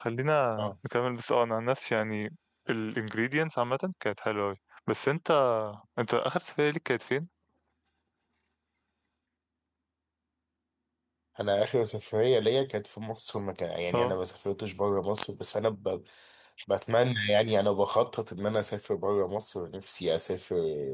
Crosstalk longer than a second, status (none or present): none